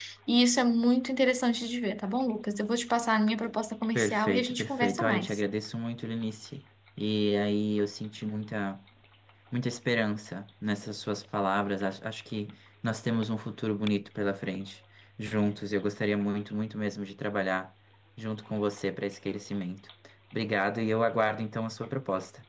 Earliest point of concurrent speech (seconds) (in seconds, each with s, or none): 4.0 s